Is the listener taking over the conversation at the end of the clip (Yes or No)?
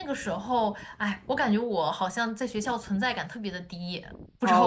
Yes